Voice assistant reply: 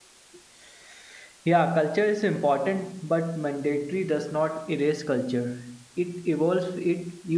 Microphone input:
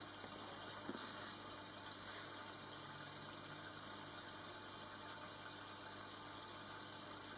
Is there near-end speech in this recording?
No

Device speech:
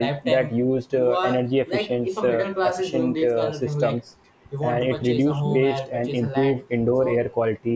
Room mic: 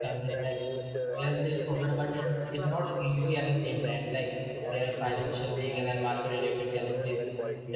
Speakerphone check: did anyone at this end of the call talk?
Yes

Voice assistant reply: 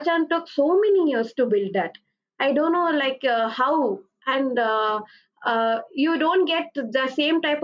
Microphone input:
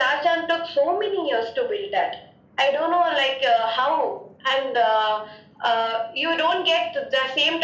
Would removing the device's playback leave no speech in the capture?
Yes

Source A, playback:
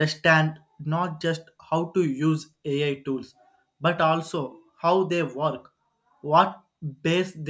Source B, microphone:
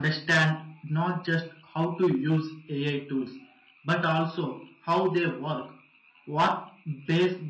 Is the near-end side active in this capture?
No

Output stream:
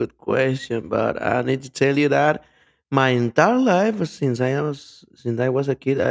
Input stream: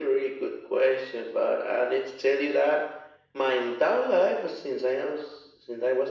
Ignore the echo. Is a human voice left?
No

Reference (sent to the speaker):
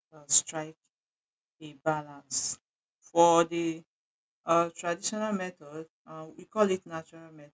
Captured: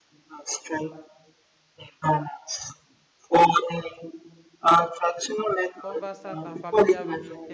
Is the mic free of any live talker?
No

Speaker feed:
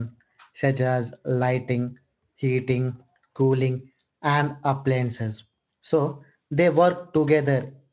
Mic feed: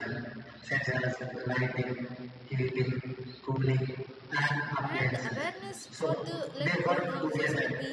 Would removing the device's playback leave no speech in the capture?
No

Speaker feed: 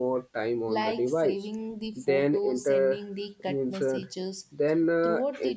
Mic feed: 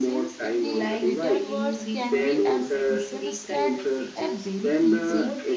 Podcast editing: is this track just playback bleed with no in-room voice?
No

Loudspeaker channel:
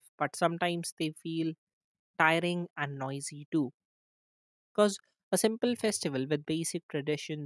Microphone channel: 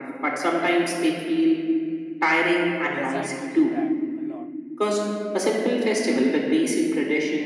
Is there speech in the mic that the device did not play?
Yes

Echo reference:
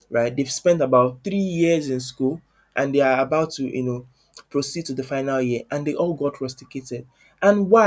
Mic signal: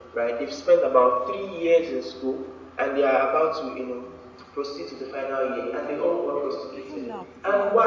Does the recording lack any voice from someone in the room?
No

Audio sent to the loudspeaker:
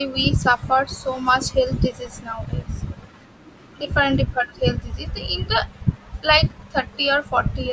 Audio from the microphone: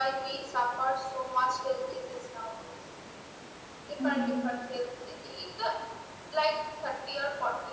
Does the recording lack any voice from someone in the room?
No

